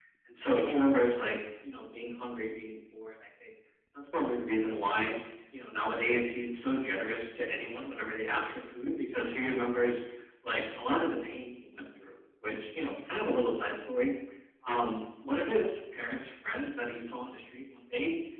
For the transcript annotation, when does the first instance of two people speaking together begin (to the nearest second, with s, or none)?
none